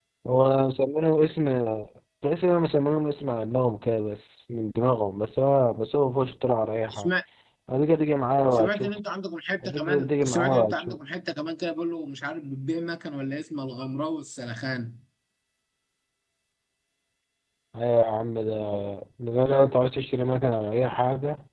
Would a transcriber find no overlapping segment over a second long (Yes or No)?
No